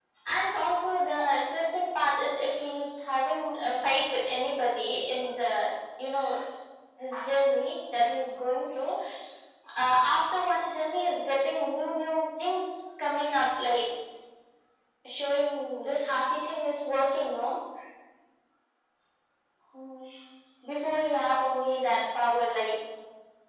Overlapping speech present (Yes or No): No